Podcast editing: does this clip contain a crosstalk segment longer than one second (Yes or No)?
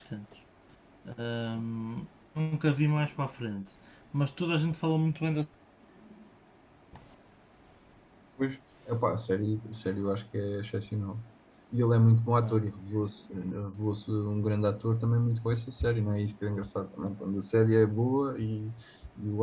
No